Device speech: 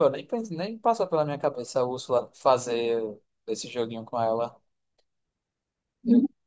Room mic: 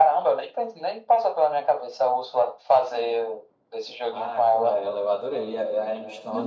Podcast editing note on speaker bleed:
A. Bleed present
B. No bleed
A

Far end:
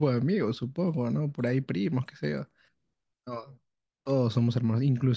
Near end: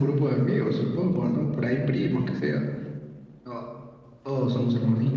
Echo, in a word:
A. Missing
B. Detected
B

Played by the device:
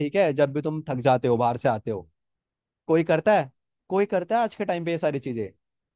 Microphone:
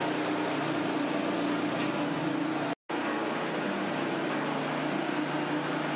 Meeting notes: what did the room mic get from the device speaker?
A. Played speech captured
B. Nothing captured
B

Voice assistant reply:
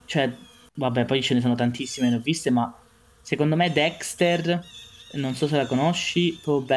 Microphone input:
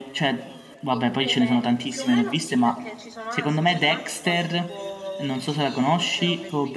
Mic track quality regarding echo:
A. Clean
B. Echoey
B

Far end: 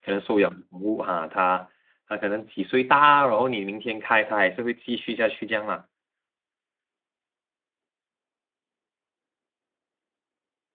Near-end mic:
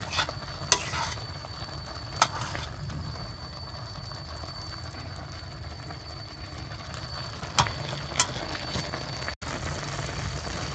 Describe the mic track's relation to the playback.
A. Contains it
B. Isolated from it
B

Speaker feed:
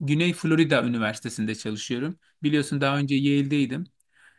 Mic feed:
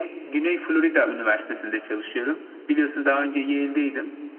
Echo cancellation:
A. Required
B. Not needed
A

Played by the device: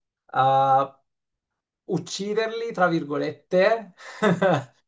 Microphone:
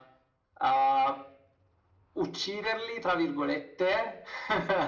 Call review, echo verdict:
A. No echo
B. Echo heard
B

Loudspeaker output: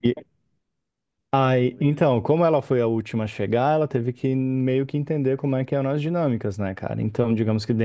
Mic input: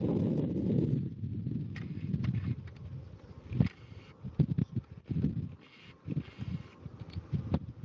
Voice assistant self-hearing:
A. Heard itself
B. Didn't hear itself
B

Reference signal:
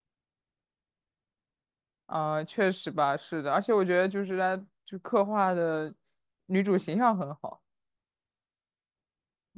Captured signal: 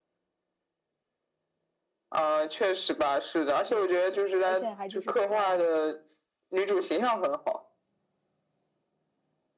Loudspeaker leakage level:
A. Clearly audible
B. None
A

